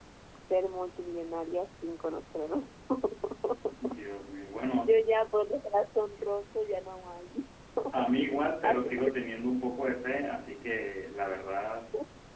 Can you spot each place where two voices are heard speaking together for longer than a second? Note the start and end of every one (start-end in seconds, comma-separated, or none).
none